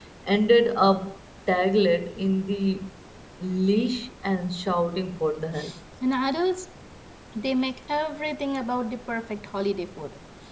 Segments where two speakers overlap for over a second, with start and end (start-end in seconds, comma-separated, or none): none